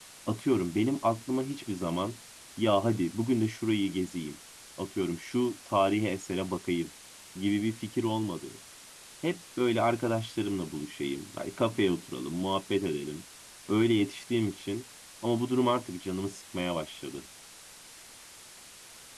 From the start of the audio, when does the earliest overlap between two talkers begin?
none

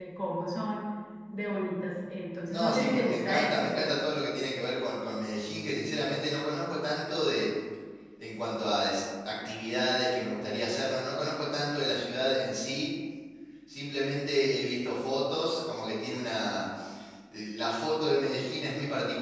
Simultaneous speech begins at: 2.5 s

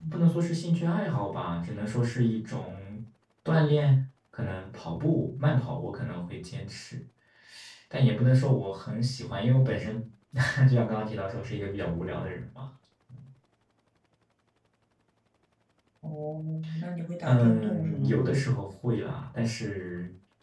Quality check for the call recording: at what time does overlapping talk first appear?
17.3 s

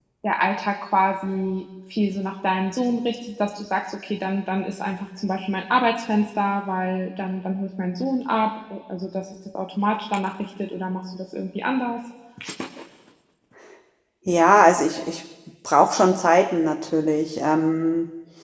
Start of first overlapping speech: none

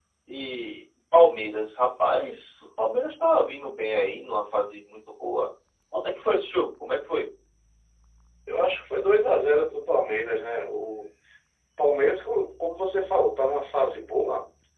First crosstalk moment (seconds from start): none

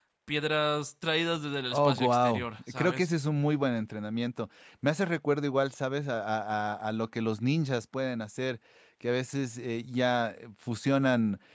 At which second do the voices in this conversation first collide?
1.7 s

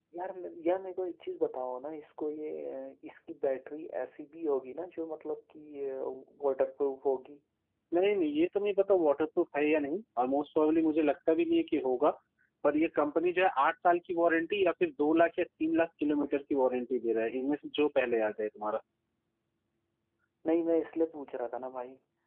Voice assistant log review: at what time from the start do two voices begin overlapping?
none

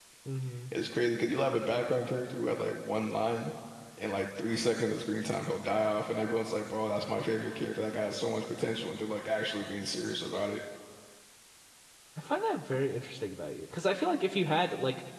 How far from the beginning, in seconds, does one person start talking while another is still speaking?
none

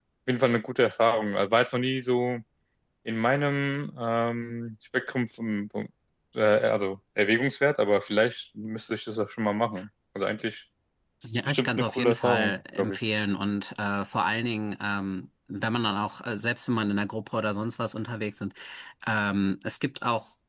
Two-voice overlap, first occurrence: 11.5 s

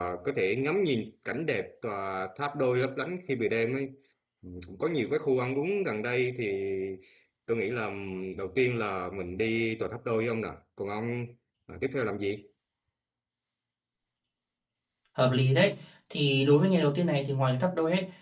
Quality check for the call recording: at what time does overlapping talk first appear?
none

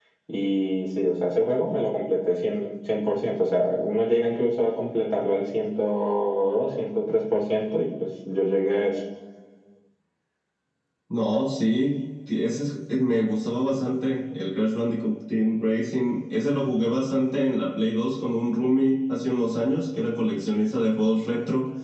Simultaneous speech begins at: none

